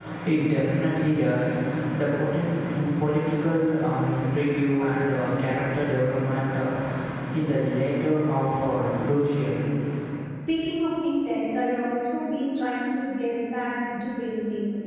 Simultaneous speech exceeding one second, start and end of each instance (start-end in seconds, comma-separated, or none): none